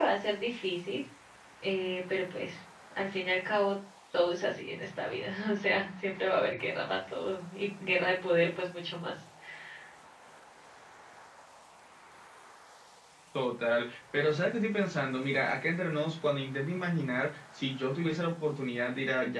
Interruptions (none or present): none